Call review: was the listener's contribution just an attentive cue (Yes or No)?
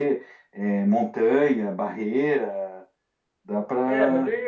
No